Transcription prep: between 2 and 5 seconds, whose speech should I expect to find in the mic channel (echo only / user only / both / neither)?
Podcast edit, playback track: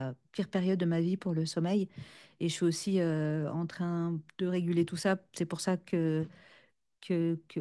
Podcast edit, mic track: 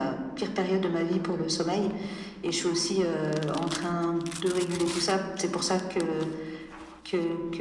echo only